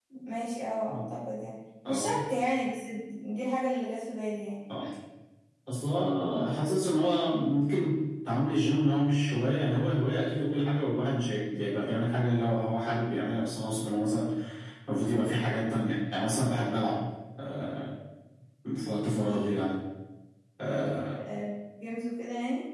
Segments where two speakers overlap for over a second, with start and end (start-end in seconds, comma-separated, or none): none